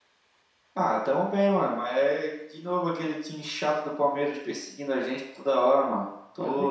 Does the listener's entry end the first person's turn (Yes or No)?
No